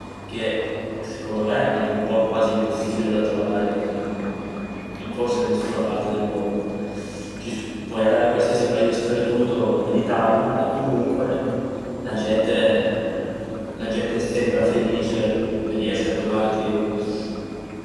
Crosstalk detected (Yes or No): No